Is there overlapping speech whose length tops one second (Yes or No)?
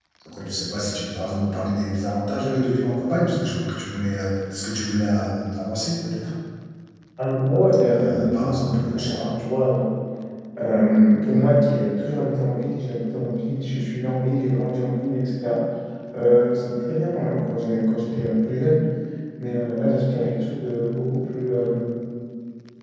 Yes